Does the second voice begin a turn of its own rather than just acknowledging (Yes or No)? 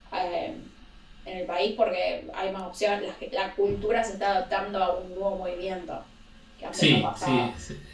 Yes